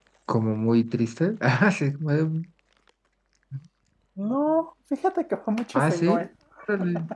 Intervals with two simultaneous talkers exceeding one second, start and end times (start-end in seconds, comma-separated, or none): none